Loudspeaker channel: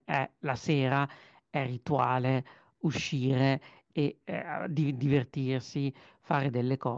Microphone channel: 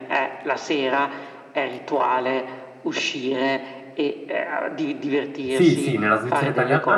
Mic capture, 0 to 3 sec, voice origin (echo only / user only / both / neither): echo only